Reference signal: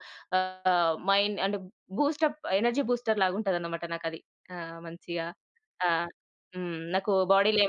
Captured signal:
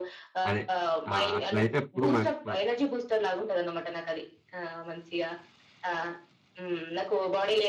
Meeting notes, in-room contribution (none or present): present